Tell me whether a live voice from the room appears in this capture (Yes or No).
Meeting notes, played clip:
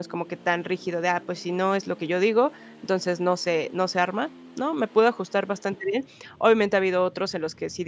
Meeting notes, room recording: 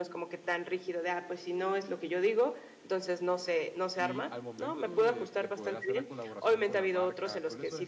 Yes